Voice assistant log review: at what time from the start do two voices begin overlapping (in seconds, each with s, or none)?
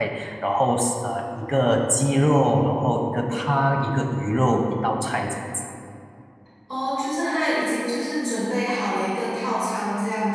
none